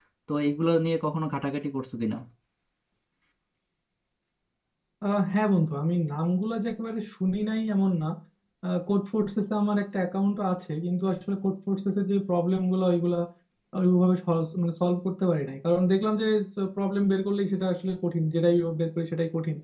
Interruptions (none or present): none